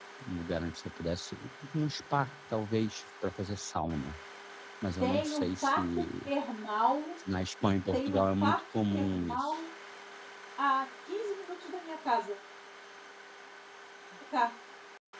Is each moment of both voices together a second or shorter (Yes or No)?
No